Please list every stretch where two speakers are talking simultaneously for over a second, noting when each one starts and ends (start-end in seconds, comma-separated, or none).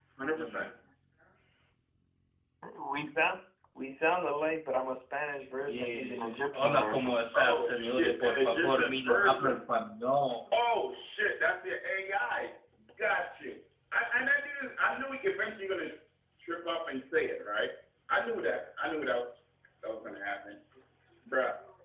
5.7-9.6